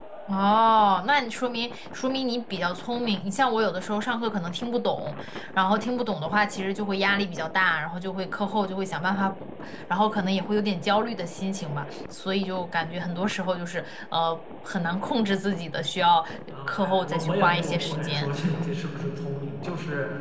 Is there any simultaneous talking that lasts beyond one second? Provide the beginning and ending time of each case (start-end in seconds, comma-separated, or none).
16.7-18.3